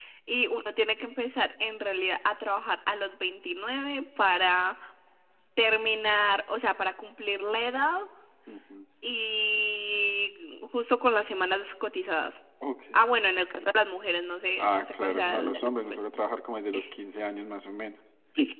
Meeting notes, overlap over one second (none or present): present